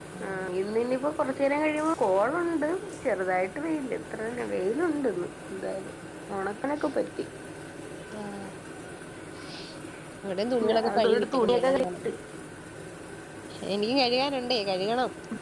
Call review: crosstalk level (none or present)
present